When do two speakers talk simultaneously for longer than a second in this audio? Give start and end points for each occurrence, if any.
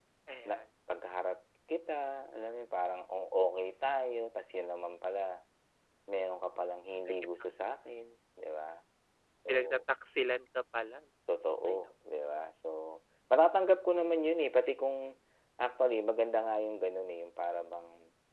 none

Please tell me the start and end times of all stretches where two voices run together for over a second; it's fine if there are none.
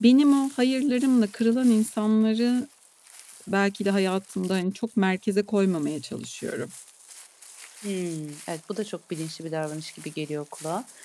none

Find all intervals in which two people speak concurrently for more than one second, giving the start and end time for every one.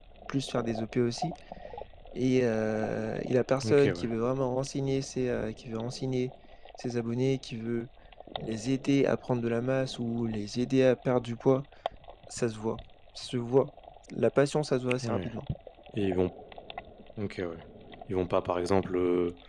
none

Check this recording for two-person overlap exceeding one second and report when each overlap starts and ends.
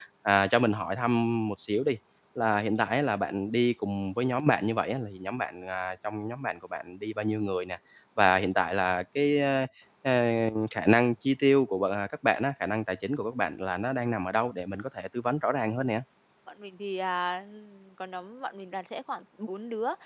none

